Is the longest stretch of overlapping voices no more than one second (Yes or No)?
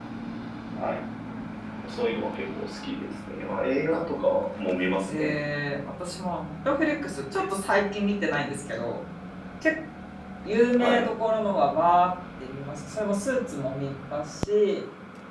Yes